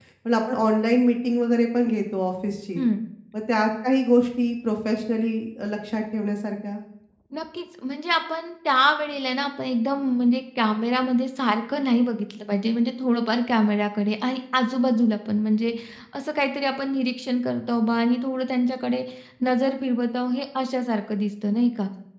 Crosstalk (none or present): none